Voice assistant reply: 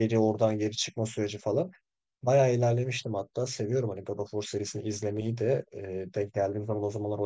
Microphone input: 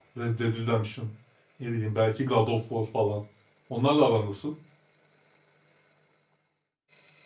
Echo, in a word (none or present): none